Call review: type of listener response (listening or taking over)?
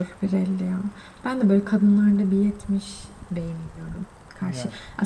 listening